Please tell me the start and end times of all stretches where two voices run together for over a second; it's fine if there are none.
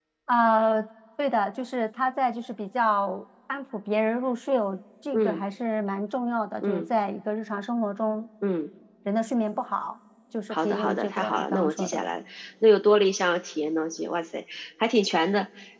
10.5-12.0

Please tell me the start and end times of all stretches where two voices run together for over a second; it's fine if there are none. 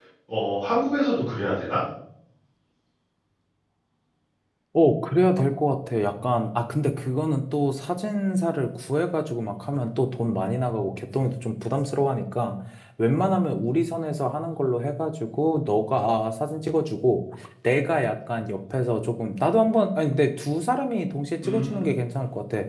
none

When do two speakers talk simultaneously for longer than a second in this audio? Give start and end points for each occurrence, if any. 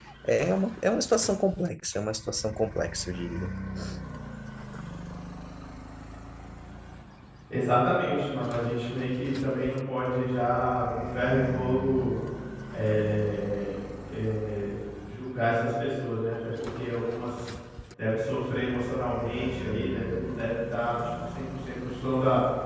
none

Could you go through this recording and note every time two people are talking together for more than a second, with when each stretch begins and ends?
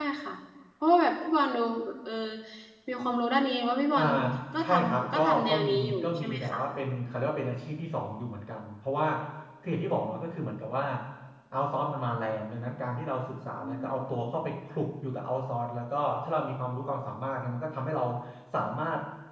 4.6-6.6

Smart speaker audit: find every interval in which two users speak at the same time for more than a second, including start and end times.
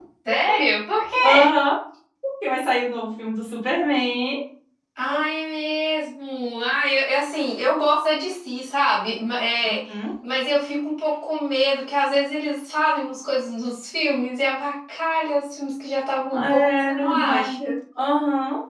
16.3-17.7

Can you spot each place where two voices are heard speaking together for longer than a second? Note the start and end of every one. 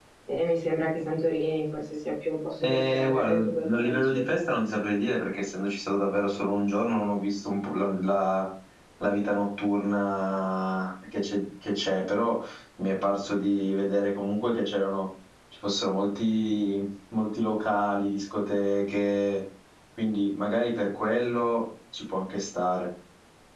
2.6-4.2

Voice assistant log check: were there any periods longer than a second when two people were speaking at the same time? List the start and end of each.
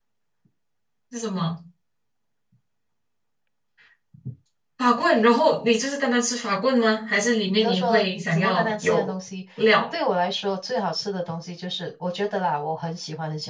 7.5-9.1

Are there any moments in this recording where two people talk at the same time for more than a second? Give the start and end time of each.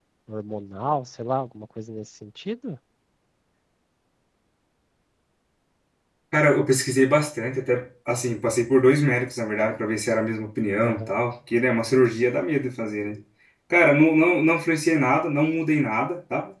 none

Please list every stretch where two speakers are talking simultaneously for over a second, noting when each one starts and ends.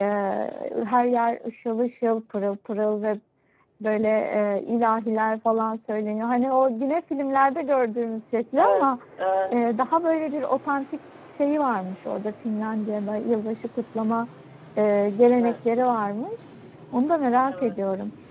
none

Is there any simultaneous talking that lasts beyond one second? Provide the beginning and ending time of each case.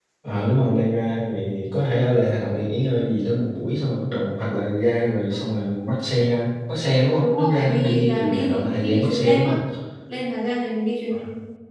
7.2-9.5

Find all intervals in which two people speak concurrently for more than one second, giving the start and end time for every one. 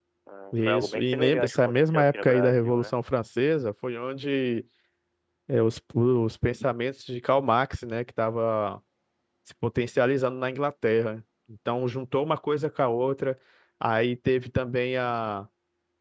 0.5-2.9

